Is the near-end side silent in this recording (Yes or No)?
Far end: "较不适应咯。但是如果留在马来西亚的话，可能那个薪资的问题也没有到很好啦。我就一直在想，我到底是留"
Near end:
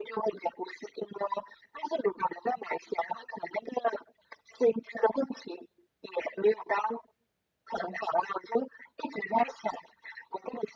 Yes